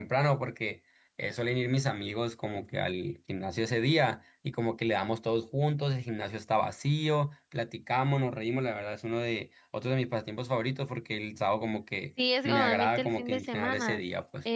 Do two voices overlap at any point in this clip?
Yes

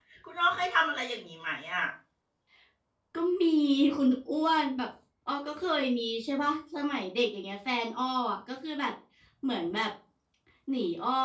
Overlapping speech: No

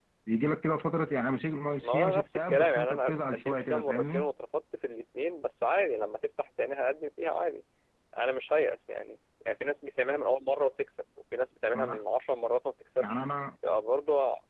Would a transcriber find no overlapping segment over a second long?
No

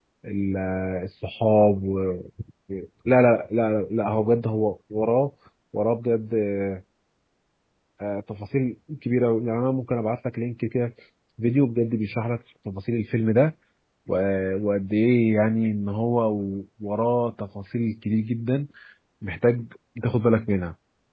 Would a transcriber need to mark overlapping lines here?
No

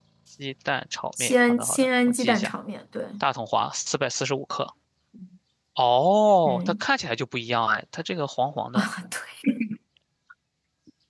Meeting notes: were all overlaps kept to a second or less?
No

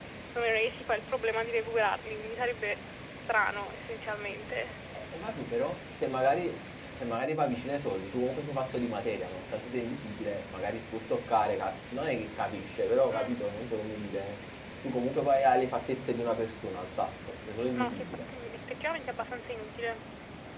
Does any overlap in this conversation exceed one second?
No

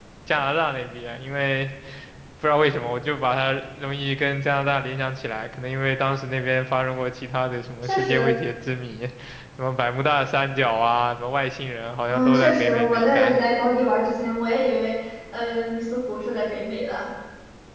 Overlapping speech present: Yes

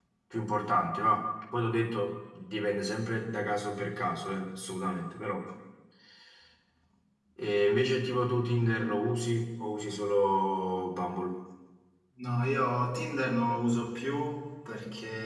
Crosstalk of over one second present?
No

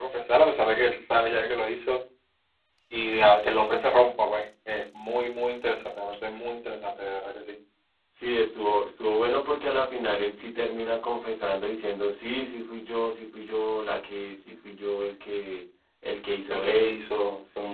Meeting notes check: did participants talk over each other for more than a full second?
Yes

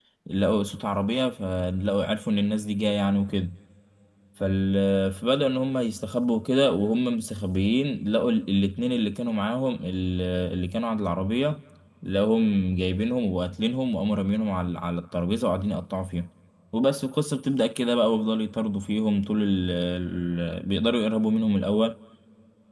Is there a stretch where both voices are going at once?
No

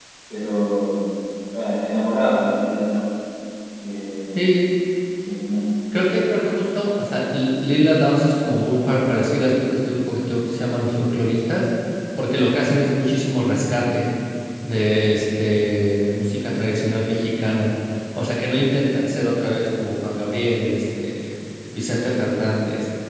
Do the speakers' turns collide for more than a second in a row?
No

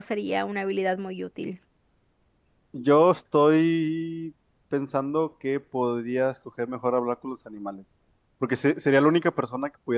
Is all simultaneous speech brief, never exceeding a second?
Yes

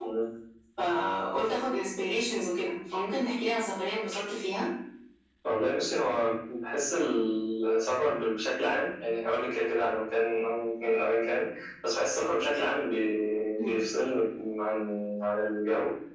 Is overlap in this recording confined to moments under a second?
Yes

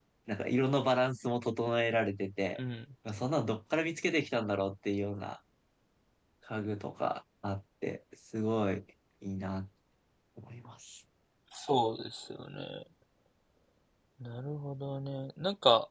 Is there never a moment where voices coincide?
Yes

